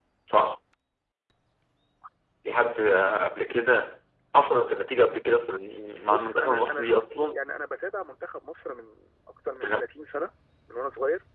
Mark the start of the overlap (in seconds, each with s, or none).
6.1 s